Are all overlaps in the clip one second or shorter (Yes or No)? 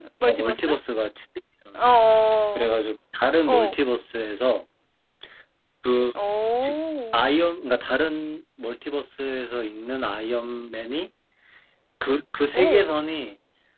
Yes